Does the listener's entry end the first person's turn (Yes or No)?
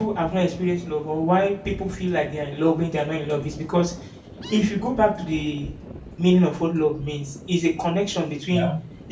No